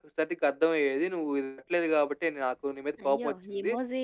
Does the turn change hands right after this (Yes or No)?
Yes